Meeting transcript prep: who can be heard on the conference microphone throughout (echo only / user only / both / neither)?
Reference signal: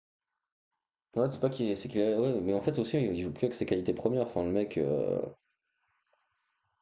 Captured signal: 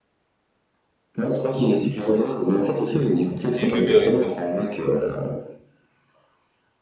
both